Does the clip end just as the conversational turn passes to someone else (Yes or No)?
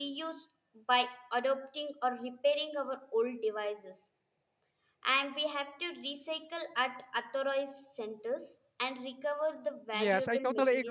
Yes